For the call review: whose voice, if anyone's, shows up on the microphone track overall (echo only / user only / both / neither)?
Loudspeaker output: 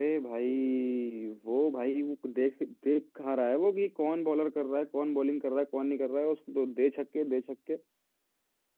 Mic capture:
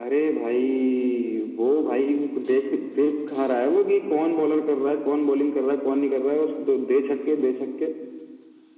echo only